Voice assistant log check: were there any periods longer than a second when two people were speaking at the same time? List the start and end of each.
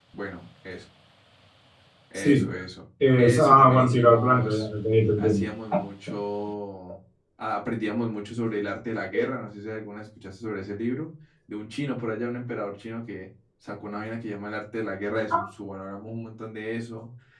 3.2-4.7

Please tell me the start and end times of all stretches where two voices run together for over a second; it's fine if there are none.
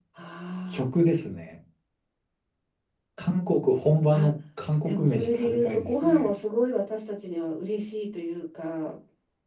4.8-6.3

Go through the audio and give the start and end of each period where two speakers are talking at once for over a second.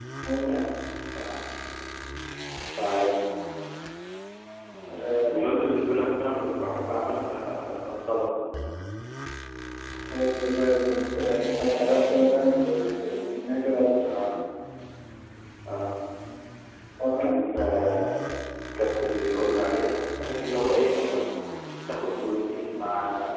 none

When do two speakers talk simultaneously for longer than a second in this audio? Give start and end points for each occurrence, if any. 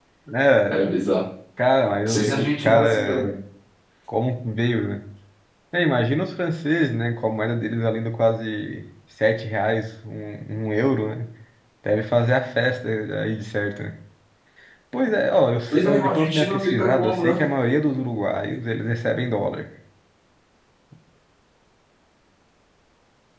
2.1-3.3, 15.7-17.3

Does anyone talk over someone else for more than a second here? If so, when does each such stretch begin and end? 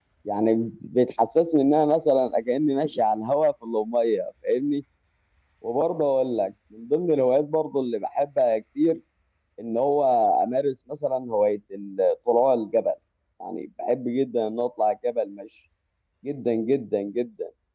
none

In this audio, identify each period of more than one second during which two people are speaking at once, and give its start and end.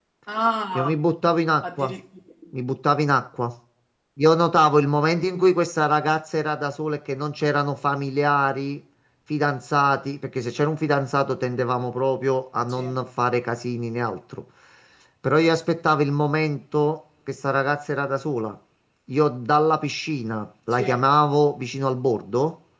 none

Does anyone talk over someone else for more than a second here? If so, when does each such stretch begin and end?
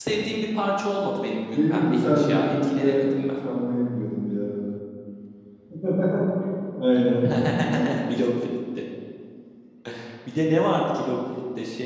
1.5-3.1

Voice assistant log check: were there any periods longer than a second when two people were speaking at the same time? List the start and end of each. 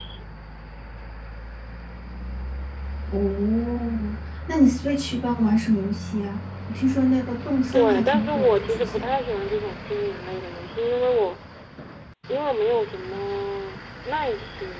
7.7-9.1

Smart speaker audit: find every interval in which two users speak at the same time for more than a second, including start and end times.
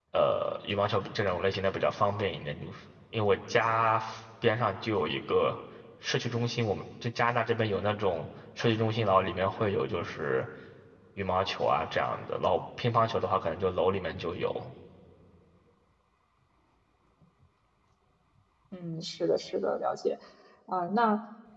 none

